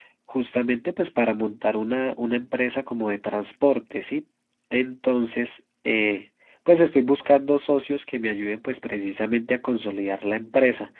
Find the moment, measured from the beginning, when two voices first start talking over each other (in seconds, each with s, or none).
none